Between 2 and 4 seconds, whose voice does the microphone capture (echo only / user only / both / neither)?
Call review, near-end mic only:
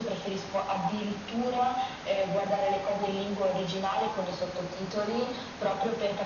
echo only